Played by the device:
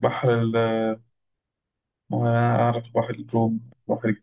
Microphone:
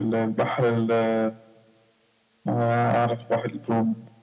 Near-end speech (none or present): none